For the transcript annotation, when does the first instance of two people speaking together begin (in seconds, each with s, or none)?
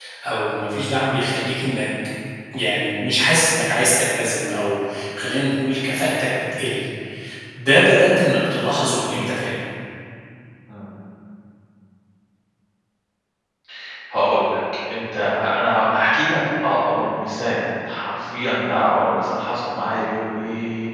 none